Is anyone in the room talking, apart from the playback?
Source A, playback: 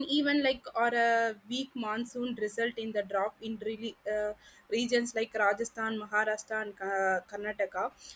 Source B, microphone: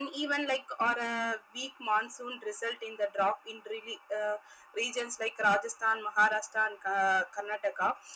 No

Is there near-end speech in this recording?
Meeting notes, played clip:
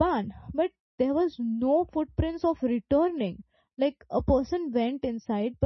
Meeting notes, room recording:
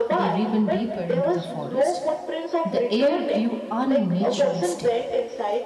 Yes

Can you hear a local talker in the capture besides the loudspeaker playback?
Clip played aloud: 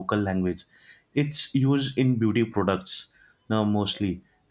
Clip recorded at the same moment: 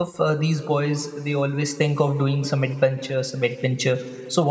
Yes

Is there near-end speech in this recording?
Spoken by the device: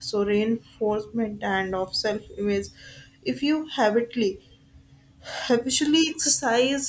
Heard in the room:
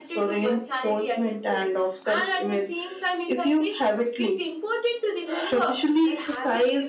Yes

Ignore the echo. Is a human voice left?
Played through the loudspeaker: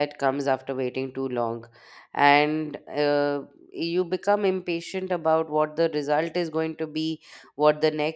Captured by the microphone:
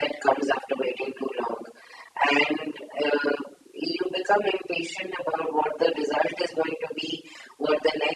No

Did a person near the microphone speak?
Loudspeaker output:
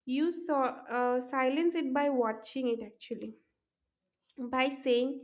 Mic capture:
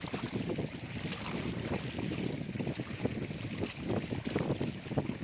No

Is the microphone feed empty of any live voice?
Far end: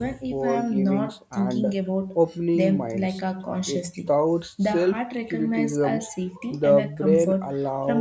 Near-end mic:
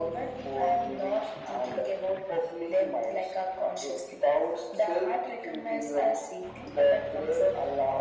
Yes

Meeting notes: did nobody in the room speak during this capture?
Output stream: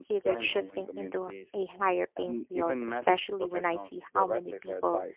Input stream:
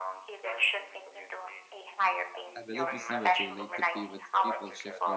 No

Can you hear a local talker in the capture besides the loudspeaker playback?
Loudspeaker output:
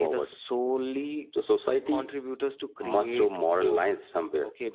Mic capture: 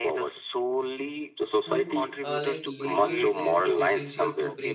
Yes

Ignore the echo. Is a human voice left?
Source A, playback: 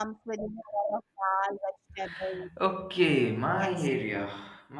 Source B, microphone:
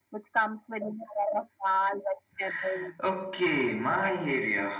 No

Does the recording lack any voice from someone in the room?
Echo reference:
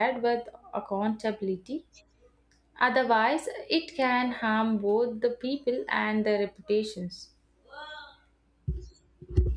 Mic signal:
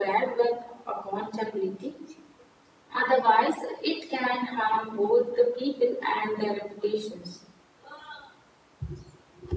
Yes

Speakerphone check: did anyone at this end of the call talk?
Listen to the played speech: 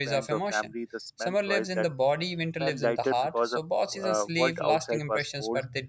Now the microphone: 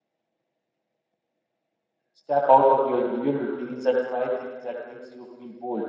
Yes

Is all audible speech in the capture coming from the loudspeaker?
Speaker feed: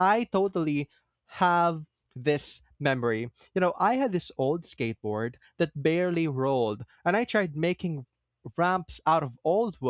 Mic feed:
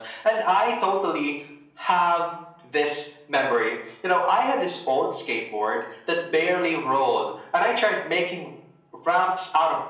Yes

